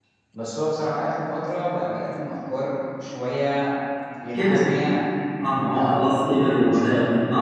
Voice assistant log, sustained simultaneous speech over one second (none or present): present